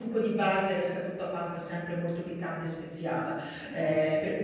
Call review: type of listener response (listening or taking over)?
listening